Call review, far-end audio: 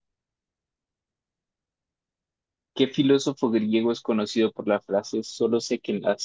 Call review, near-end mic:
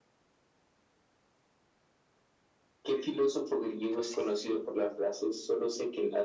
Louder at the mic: echo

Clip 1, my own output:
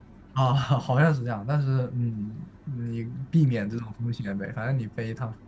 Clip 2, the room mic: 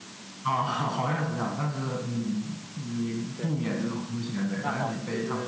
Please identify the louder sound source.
echo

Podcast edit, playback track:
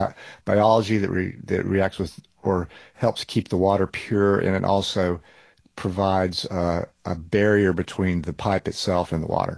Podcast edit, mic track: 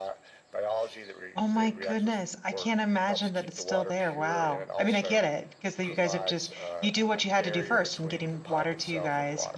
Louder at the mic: user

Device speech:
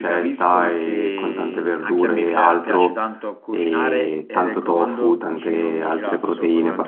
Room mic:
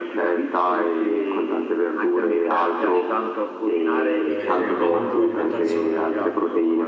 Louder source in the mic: echo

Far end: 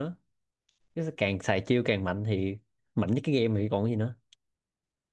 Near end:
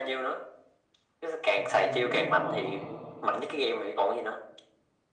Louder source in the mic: echo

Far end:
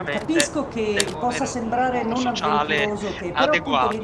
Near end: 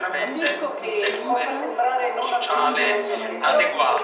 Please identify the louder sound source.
echo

